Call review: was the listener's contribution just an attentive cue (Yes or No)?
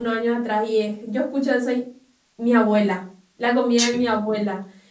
Yes